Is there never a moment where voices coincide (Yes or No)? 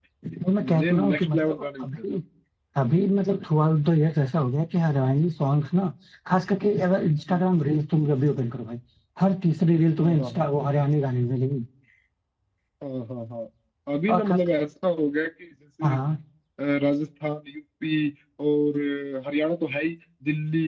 No